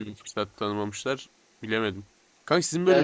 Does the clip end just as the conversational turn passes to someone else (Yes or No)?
No